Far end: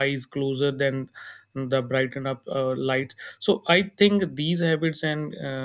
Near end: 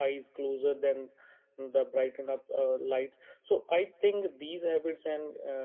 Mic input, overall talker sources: echo only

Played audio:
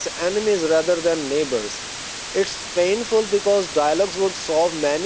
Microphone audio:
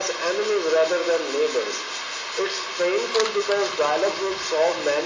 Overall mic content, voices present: echo only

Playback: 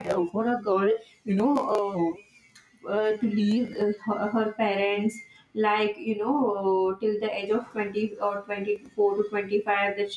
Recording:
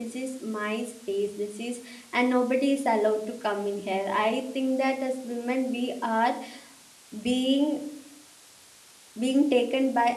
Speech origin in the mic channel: user only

